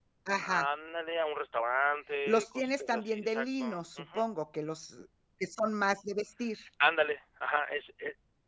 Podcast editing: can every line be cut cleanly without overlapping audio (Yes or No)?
No